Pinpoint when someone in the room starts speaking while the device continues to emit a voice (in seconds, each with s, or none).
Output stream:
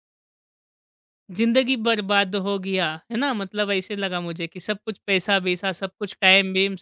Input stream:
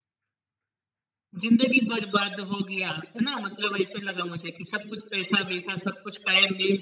none